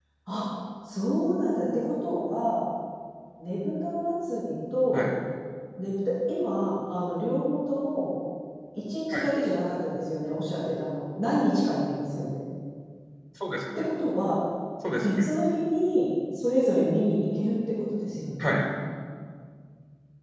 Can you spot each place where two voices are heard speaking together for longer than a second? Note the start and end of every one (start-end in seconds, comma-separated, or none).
none